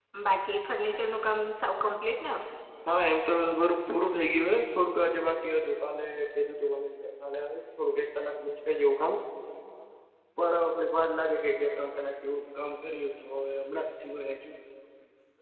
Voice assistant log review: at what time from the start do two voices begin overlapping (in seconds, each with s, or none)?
none